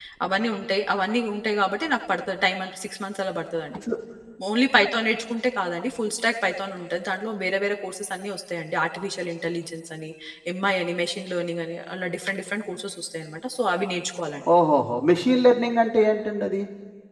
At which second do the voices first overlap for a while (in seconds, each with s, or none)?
none